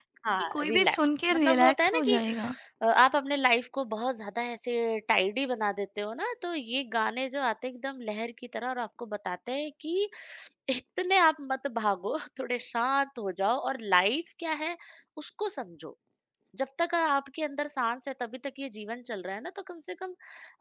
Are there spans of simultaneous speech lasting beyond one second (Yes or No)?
Yes